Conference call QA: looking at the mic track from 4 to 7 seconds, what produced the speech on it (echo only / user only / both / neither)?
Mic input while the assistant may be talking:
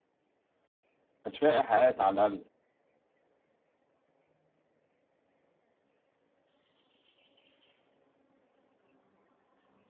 neither